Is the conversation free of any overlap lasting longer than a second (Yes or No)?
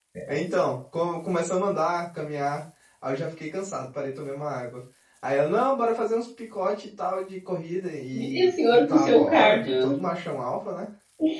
No